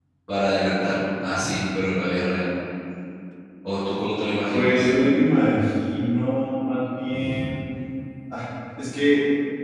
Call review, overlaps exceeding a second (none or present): none